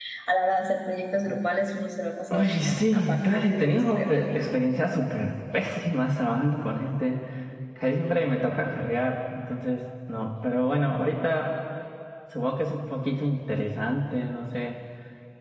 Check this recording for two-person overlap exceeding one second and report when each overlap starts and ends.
2.3-4.5

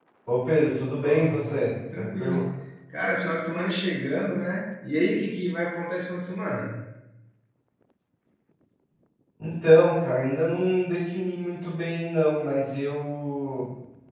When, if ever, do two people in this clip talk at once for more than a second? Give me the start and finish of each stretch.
1.0-2.4

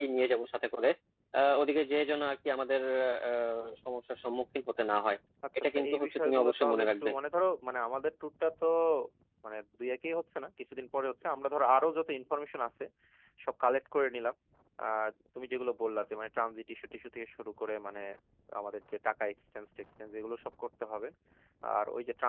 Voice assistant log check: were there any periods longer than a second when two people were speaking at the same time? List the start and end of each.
5.6-7.1

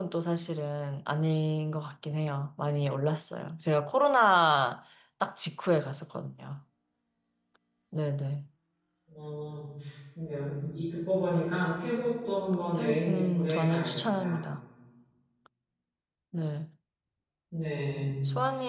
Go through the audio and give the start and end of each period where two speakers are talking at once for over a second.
12.8-14.4

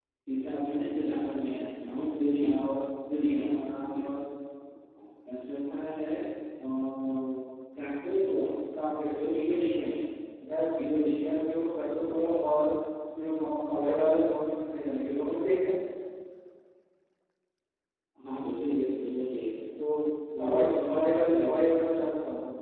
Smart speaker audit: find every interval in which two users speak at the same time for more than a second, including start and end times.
20.4-21.6

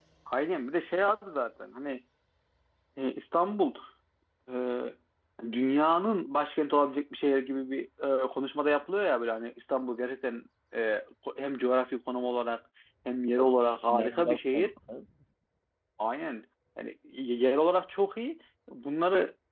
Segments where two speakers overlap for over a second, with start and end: 13.4-14.7

